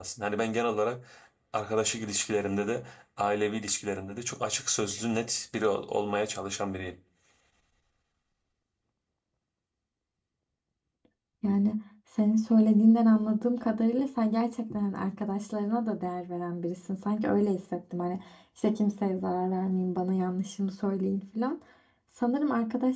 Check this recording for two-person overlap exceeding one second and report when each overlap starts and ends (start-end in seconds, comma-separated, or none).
none